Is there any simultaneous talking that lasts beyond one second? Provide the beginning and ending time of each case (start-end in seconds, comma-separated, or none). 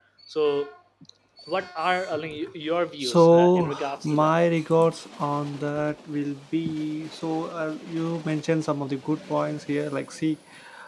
3.0-4.3